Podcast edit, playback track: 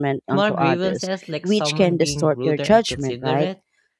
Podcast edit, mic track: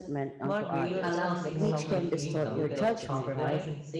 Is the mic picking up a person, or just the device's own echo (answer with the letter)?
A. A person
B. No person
A